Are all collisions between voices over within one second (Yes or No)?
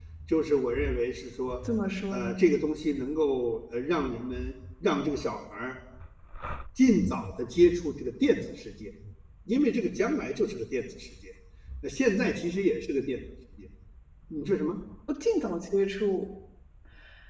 Yes